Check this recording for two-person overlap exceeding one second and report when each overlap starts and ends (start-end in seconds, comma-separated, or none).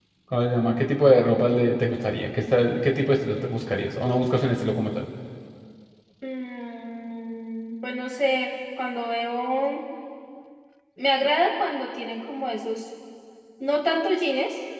none